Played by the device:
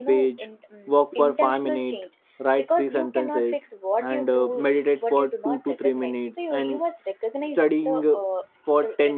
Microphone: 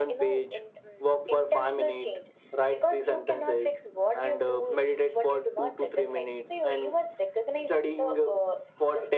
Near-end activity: none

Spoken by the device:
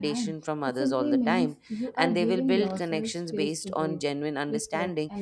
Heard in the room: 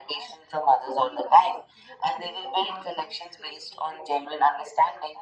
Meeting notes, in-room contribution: none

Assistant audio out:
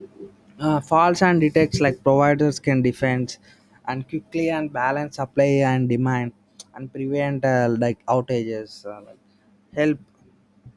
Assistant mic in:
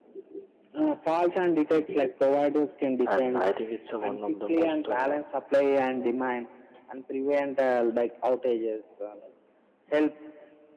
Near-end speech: present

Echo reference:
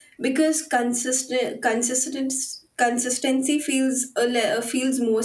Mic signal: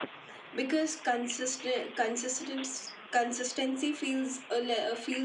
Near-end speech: none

